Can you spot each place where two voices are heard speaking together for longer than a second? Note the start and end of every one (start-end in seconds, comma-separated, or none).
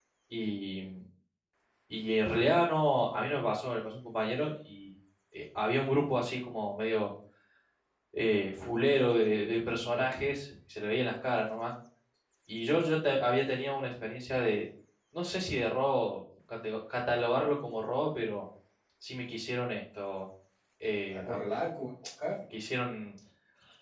none